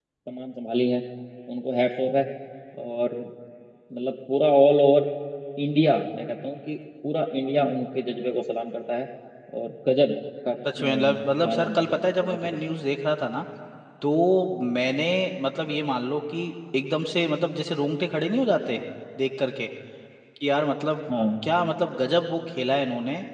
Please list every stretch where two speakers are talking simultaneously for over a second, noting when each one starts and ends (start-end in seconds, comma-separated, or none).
11.4-12.7